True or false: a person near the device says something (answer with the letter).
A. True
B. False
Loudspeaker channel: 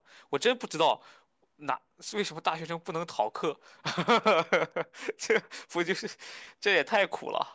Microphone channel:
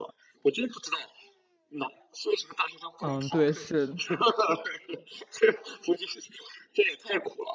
A